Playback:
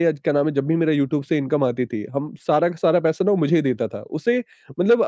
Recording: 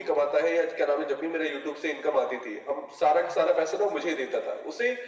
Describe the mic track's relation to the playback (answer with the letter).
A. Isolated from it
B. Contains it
B